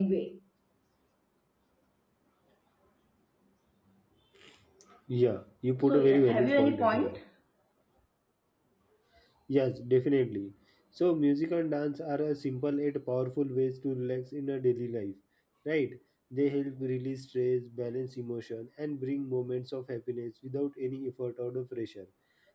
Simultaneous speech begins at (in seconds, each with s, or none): 5.8 s